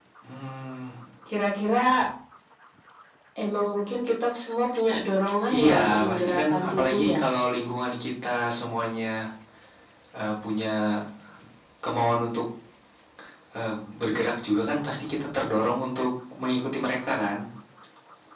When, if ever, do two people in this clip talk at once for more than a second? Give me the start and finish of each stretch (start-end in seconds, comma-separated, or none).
5.6-7.2